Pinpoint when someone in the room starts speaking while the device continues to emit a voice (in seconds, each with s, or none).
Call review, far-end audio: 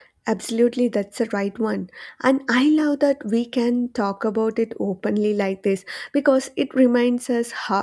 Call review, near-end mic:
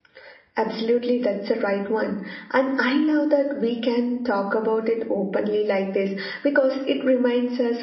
none